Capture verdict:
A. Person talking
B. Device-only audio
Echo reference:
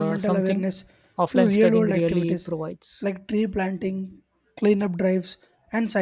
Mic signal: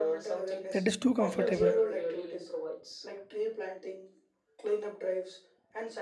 A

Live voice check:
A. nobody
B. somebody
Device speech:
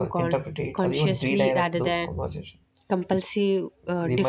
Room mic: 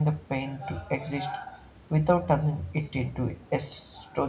B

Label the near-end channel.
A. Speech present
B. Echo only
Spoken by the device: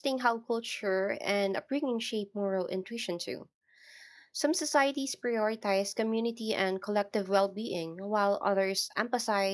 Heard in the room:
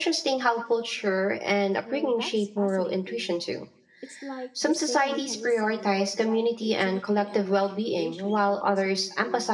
A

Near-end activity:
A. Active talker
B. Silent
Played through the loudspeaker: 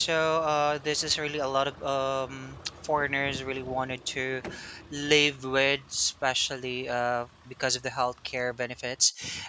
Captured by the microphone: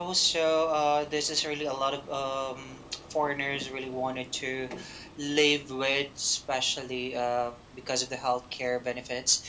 B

